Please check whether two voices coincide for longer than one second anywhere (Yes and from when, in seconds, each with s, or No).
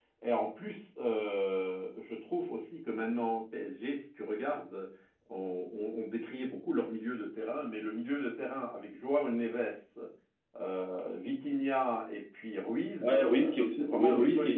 Yes, from 13.0 s